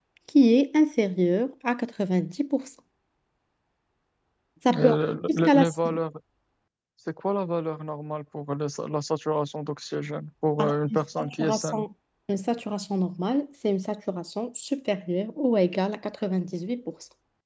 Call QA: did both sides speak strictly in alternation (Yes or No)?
No